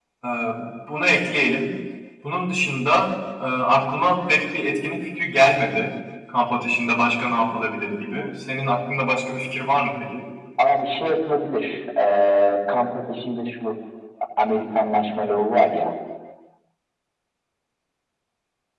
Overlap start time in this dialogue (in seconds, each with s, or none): none